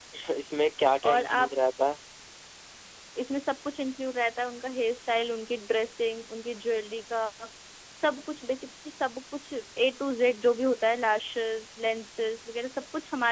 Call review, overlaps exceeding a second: none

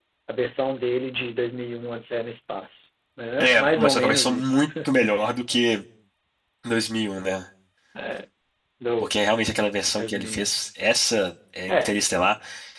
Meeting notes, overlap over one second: present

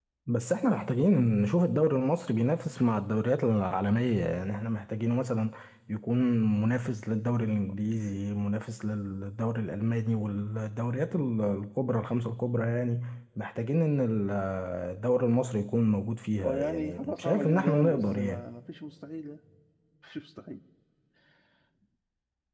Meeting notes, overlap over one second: present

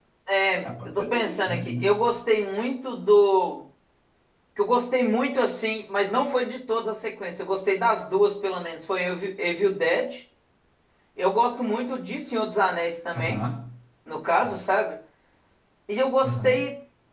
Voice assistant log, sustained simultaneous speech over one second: present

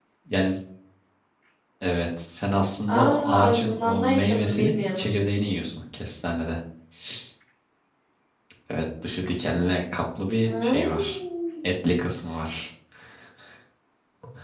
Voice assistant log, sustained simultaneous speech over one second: present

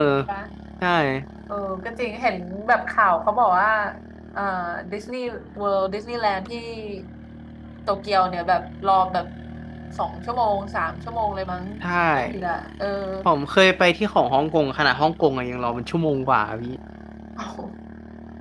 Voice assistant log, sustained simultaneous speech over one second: none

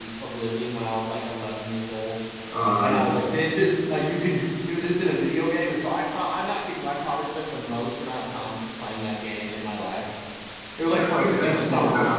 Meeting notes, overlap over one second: present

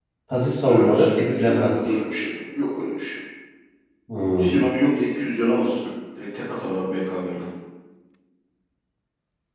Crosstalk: present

